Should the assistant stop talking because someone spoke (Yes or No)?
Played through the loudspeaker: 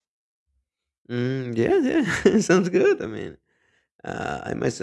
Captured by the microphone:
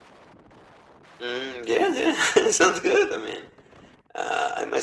No